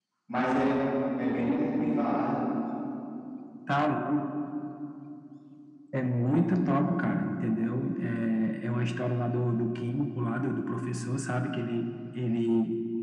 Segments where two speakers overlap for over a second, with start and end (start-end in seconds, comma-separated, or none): none